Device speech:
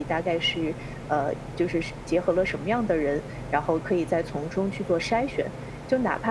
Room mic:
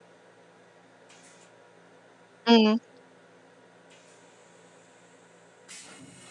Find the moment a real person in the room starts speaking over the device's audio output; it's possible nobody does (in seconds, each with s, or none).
2.4 s